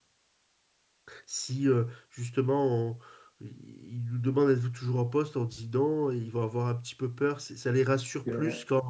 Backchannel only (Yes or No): Yes